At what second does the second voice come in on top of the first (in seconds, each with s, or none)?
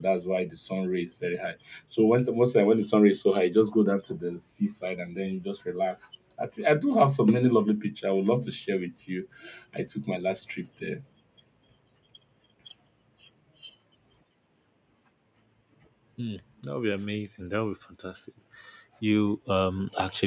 none